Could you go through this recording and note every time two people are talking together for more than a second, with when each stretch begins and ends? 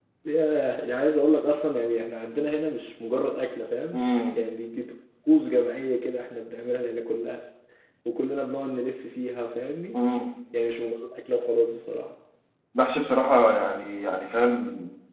none

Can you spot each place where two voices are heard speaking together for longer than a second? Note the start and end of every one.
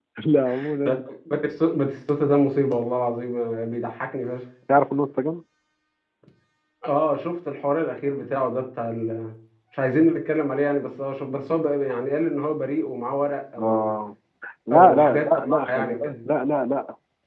14.7-16.2

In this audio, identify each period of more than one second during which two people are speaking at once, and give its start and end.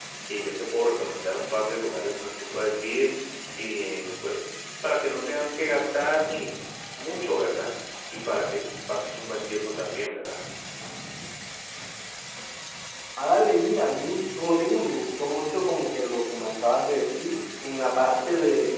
none

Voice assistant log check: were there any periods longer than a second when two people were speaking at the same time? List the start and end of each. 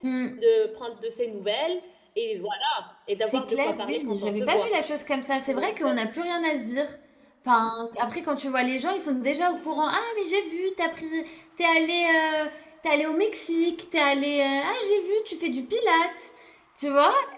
3.2-4.7

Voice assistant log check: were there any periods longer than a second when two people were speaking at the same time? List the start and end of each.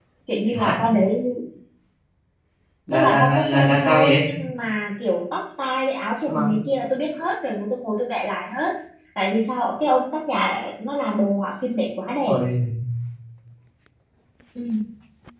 2.9-4.3

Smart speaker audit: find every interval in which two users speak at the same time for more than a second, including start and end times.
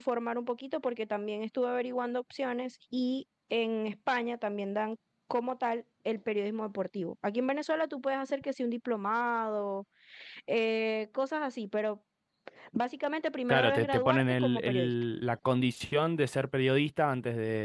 13.5-14.9

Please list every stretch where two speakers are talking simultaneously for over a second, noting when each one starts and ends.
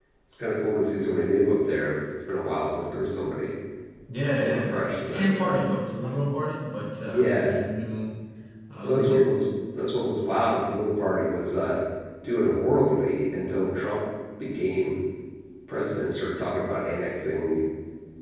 4.3-5.6

